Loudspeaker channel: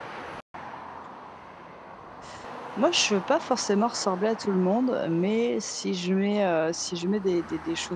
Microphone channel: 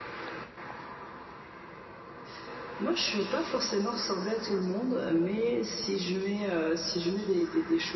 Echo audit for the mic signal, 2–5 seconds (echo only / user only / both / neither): echo only